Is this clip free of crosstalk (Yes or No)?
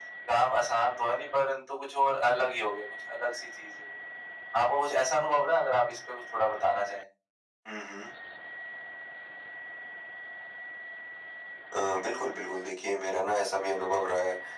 Yes